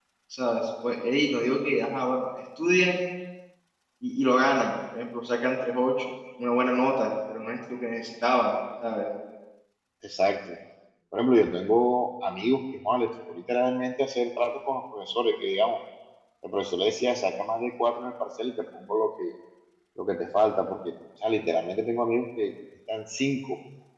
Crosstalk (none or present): none